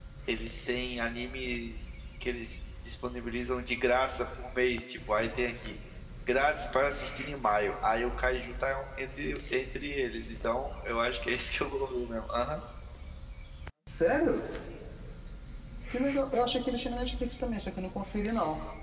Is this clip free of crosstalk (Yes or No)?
Yes